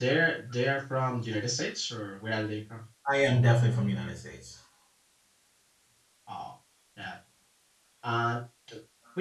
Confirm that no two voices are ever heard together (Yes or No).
Yes